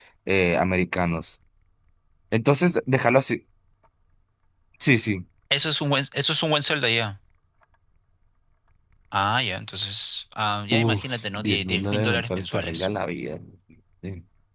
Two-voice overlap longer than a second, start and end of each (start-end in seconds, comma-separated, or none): 10.7-12.9